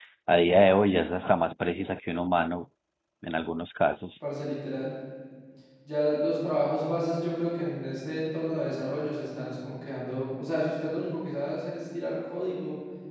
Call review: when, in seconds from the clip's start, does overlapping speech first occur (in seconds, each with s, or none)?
none